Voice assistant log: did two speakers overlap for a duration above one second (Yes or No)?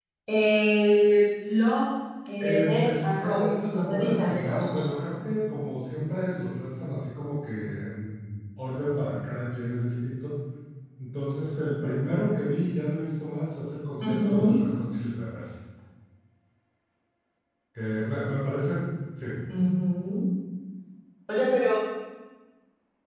Yes